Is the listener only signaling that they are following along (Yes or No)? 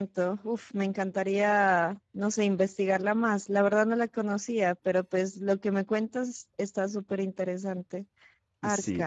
No